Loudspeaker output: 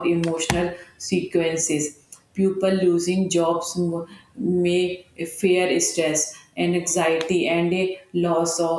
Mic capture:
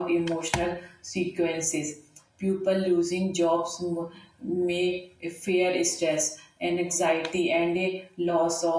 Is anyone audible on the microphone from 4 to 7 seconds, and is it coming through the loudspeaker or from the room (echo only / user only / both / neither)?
echo only